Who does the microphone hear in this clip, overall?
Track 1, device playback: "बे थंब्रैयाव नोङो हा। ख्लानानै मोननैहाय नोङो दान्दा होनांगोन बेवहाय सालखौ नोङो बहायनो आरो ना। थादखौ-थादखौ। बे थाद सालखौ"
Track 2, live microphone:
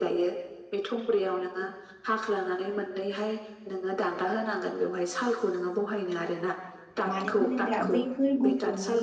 both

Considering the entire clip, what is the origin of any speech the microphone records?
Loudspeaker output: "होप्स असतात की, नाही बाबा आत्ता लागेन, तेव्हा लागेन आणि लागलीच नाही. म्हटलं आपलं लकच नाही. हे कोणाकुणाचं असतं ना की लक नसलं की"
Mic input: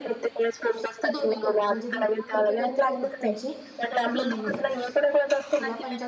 both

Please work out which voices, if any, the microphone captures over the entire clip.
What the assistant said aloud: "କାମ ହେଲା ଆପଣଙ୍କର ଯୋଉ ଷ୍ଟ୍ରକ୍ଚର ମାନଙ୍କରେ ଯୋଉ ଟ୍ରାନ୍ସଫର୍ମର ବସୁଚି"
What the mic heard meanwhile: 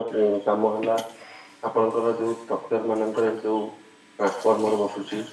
echo only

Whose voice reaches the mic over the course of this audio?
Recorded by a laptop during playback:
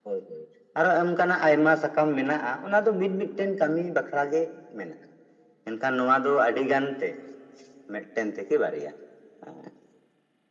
echo only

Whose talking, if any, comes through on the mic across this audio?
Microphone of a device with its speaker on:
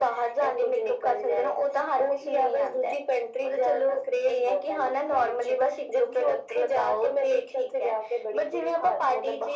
echo only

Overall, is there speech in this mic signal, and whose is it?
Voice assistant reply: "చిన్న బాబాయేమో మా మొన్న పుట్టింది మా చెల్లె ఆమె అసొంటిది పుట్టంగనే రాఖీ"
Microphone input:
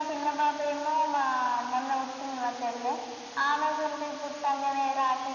echo only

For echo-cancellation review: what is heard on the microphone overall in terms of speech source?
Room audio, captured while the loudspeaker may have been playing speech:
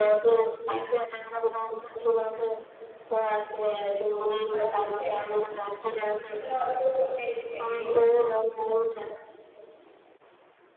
both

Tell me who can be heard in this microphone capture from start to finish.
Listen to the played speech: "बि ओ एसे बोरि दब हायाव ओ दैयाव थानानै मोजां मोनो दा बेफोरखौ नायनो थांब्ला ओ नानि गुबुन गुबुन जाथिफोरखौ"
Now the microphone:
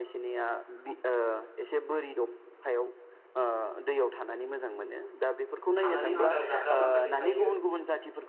both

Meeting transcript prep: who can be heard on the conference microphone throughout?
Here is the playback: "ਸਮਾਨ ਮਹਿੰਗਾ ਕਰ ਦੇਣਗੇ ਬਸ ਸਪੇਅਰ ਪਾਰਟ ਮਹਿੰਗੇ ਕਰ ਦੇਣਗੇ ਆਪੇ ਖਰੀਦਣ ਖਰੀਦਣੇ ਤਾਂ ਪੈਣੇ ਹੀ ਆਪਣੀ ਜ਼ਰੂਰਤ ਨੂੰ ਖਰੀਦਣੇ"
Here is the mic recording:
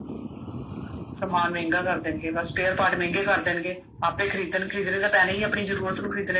echo only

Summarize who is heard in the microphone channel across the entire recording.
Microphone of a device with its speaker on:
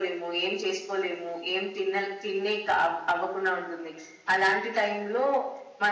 echo only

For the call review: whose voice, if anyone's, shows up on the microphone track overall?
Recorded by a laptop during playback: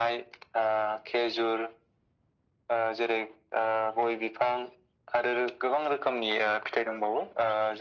echo only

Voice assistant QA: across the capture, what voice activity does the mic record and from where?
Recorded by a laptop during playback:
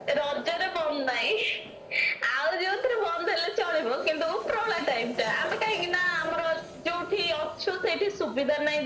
echo only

